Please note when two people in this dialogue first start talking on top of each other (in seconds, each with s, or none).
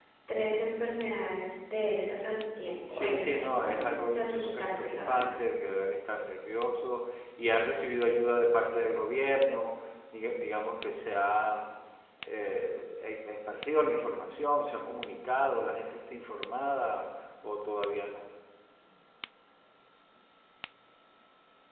2.9 s